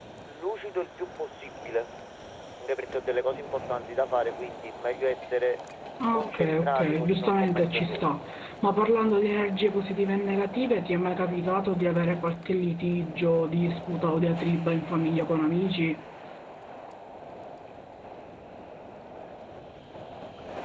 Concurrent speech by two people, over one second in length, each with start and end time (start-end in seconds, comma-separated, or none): 6.1-8.1